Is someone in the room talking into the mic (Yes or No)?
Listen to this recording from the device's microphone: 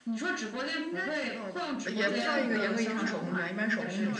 Yes